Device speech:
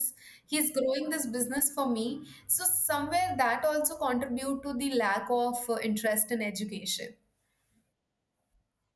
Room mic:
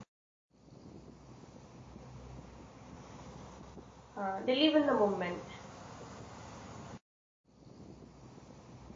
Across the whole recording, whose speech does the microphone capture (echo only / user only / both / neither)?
user only